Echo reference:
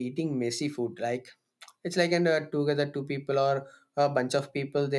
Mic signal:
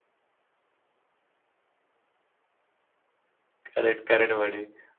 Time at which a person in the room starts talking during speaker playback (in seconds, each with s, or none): 3.7 s